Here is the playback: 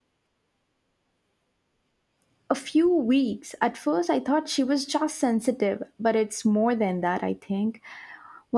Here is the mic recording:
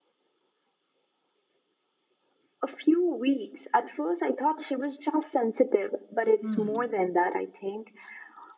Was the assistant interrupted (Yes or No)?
Yes